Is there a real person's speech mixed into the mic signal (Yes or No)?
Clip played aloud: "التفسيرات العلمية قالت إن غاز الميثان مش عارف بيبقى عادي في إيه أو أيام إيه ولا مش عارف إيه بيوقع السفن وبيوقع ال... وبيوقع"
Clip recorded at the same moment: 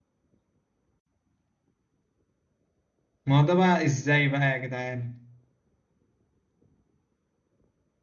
Yes